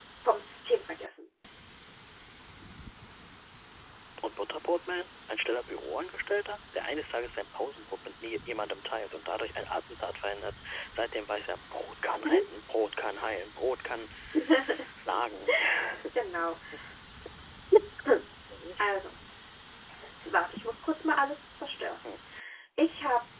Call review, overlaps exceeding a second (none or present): none